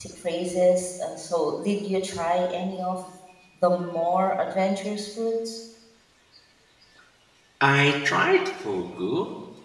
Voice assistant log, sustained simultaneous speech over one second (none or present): none